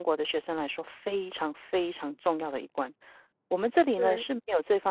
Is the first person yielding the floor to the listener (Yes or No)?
No